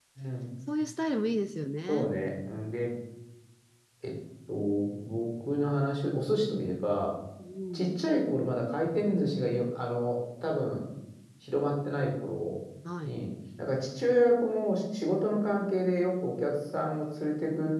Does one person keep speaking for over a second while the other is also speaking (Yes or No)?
No